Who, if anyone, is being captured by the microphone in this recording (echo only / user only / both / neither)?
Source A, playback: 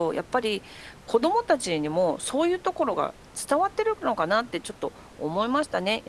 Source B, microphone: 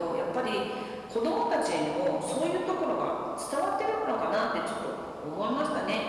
echo only